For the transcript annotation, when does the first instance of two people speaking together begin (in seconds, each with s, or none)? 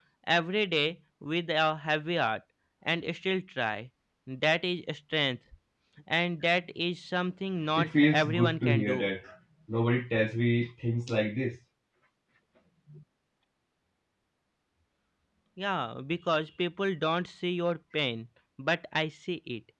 7.8 s